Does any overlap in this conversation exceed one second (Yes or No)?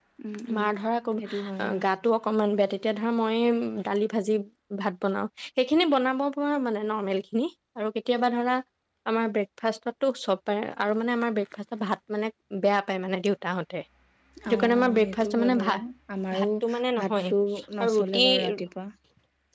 Yes